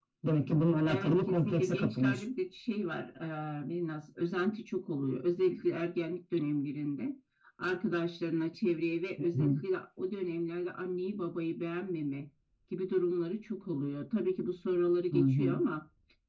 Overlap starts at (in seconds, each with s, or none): 0.8 s